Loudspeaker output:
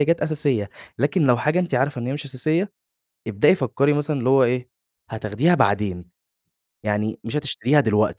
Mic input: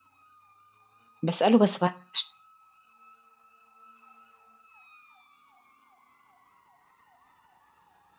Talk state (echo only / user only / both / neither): user only